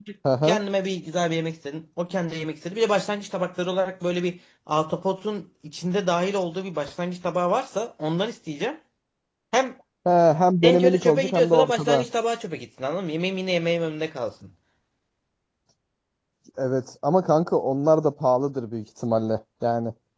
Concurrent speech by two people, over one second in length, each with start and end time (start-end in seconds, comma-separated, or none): 10.6-12.1